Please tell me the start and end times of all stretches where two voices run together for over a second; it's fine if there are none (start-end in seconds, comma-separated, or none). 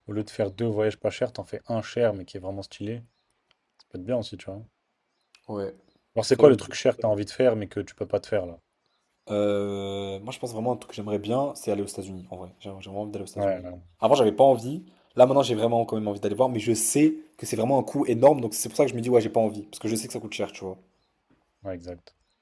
none